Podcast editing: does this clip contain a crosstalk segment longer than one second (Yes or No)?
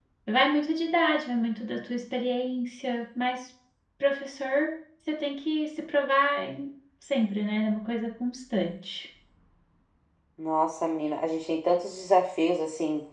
No